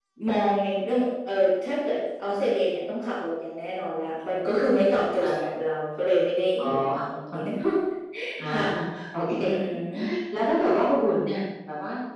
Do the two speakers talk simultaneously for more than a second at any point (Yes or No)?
No